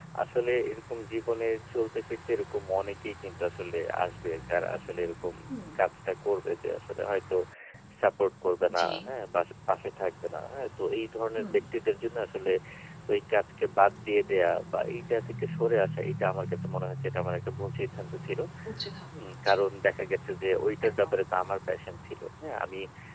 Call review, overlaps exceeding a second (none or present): none